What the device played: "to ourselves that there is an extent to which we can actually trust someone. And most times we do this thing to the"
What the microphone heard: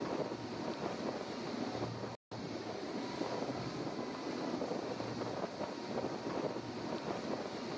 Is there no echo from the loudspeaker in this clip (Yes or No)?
Yes